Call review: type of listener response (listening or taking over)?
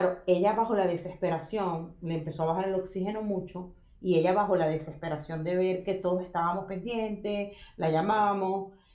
listening